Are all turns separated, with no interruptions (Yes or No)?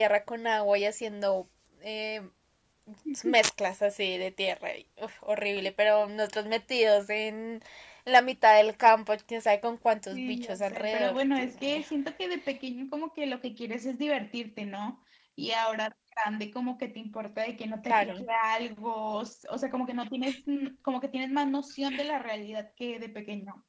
No